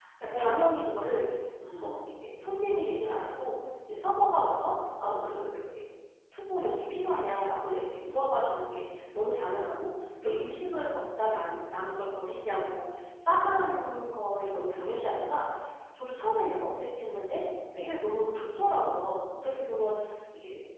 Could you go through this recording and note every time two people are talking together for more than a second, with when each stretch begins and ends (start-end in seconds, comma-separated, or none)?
none